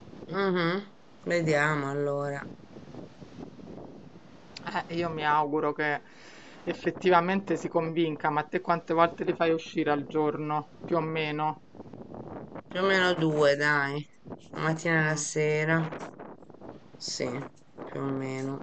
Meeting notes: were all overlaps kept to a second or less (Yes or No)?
Yes